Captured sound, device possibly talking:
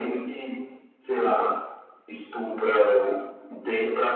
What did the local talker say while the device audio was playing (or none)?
none